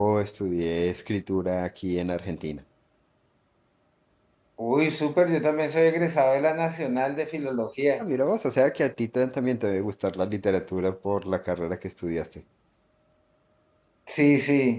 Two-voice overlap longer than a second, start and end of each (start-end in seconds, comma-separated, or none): none